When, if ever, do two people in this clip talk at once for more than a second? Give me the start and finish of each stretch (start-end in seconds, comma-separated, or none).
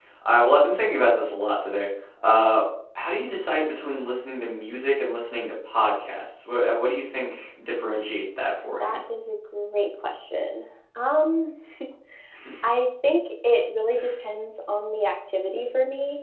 none